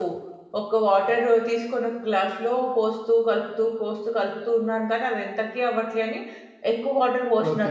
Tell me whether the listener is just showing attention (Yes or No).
No